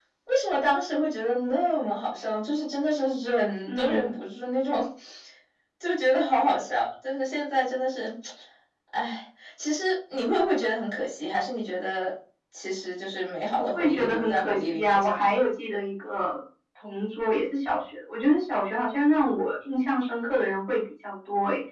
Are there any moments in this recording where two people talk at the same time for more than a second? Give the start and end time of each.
13.6-15.4

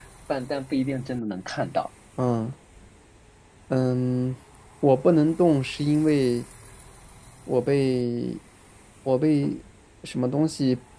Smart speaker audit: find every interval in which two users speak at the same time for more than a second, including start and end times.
none

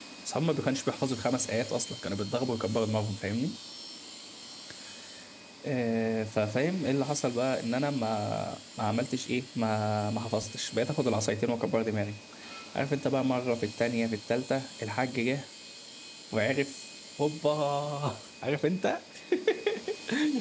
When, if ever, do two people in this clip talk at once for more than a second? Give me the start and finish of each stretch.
none

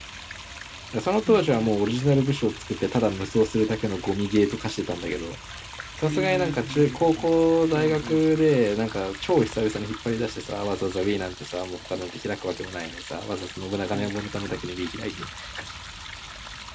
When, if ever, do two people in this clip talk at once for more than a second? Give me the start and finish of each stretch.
6.0-7.2

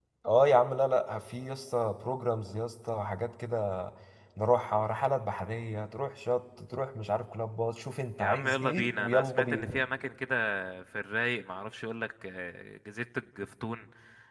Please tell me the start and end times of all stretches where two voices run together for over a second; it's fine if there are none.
8.2-9.8

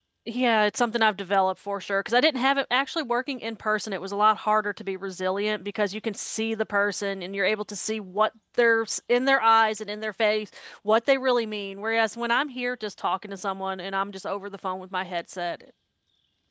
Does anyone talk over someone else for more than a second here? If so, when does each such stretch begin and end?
none

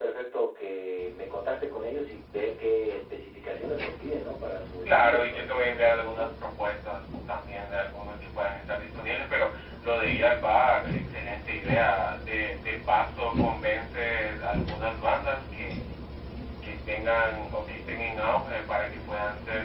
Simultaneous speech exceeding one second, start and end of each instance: 4.8-6.3

